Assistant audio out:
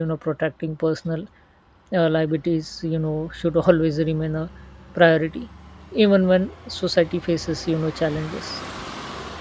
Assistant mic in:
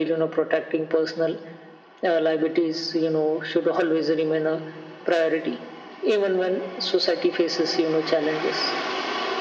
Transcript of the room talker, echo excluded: none

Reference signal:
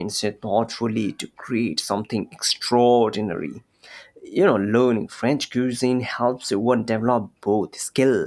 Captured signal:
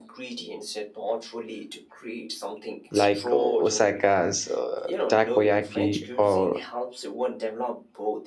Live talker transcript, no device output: like uh, Osaka's uh, takoyaki or

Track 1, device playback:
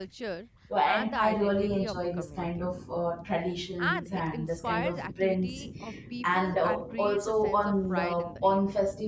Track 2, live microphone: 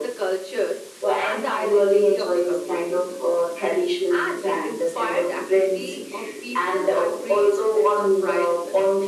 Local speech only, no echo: none

